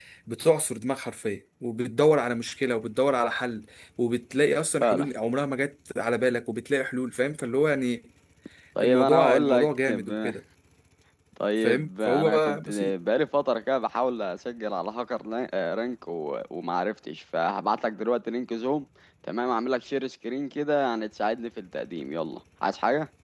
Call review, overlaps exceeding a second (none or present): present